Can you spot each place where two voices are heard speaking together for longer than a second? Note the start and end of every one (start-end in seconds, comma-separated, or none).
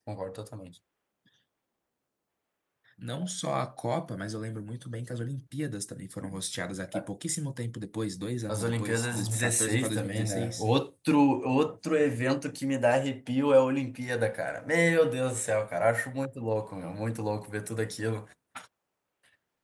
8.5-10.7